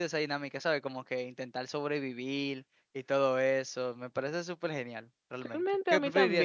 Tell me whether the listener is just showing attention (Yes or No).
No